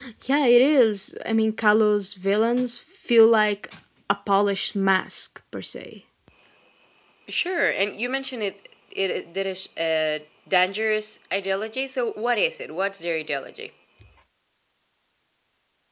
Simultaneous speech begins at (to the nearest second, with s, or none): none